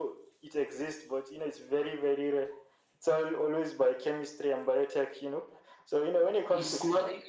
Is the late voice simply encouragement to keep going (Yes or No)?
No